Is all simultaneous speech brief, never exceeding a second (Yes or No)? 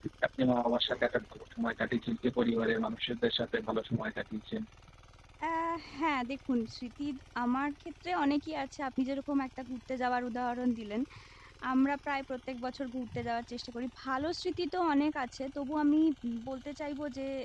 Yes